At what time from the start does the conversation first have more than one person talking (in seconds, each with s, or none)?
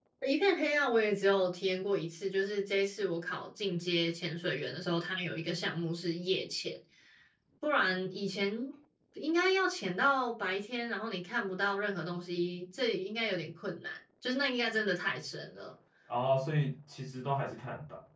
none